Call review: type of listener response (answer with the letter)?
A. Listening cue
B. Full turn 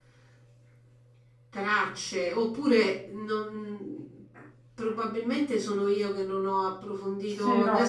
B